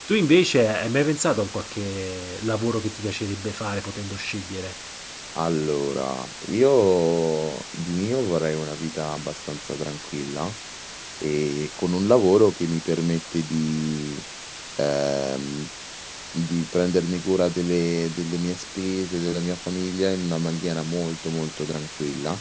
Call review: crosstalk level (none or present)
none